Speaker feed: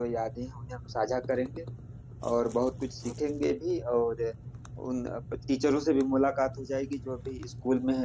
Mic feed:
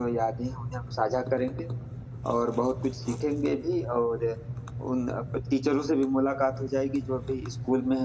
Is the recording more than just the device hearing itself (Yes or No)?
No